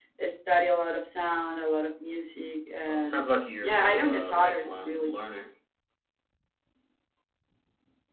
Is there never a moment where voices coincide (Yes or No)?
No